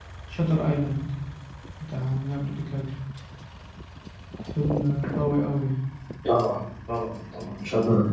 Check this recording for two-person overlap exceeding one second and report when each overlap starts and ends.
none

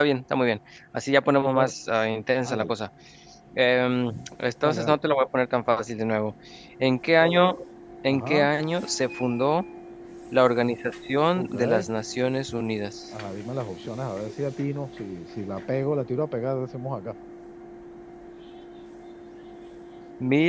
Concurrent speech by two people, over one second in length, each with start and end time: none

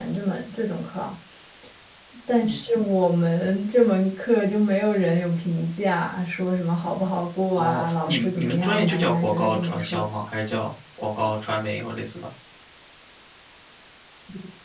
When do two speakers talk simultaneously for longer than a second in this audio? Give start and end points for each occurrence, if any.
7.6-10.0

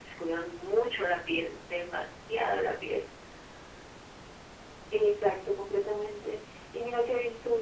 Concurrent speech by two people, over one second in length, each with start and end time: none

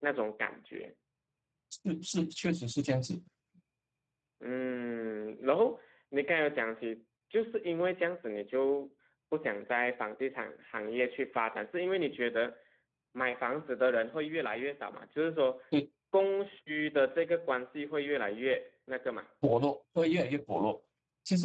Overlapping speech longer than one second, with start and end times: none

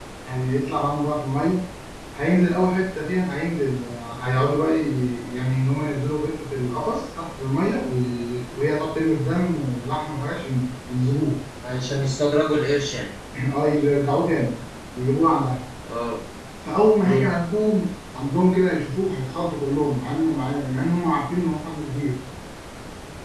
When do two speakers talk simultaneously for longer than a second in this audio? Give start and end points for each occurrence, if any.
none

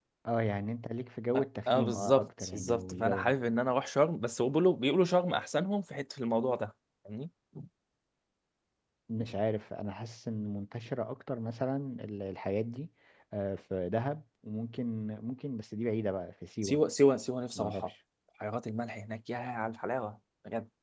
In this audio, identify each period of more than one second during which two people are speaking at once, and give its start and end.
1.4-3.4

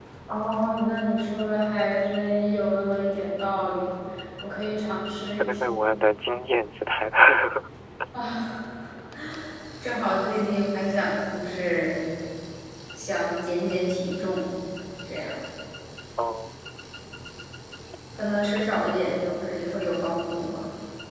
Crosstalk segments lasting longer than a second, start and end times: none

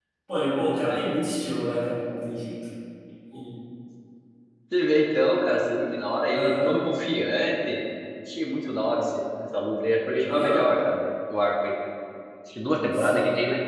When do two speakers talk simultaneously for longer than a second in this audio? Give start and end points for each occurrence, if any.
none

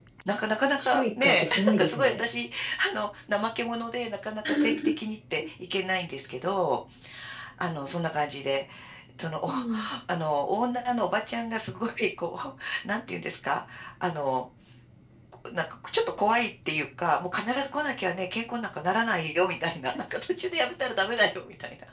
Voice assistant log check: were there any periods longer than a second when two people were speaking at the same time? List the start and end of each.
0.8-2.2

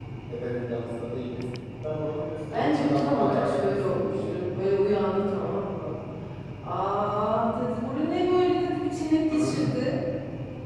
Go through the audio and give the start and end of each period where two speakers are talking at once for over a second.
2.5-4.4

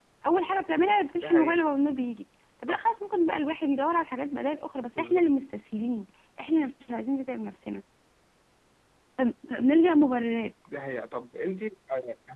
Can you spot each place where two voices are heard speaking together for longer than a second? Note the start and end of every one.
none

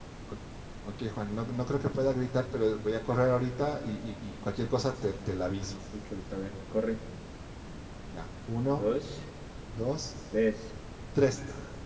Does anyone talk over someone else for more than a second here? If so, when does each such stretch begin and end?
none

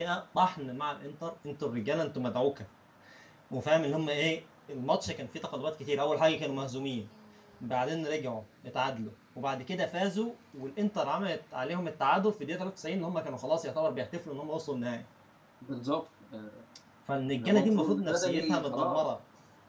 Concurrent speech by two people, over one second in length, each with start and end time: 17.3-19.0

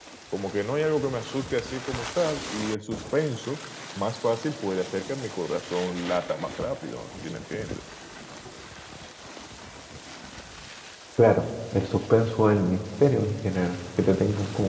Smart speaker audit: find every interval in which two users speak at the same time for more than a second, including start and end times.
none

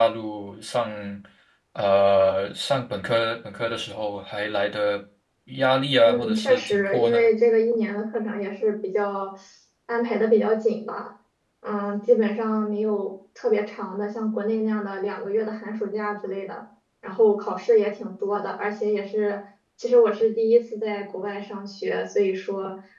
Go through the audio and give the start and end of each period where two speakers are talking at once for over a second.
6.0-7.3

